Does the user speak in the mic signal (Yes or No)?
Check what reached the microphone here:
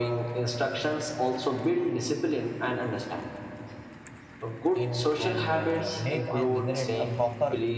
Yes